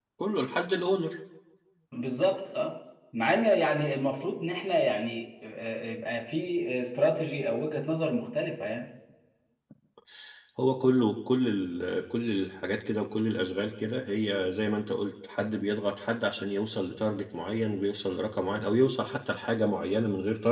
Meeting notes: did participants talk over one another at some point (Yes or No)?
No